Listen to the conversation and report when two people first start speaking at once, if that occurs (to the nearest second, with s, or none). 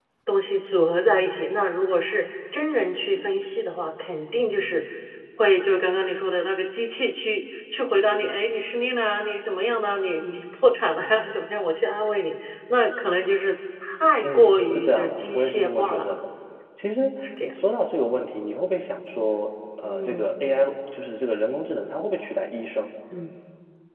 14 s